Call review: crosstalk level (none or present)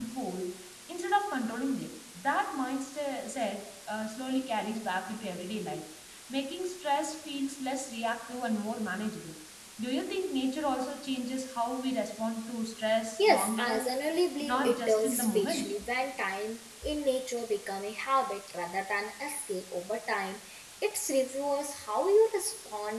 present